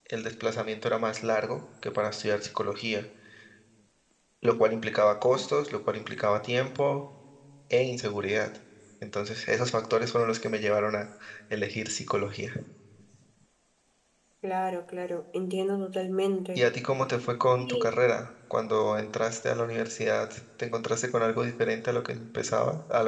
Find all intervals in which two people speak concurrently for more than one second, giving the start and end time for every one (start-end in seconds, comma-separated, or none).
none